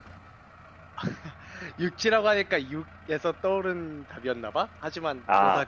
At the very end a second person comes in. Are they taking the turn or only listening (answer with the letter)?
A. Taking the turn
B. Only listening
A